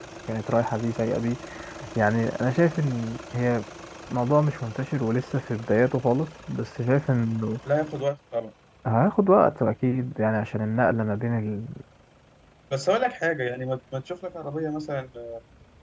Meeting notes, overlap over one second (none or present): none